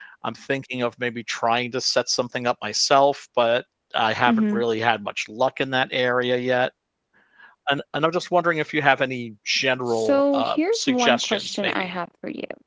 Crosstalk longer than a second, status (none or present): present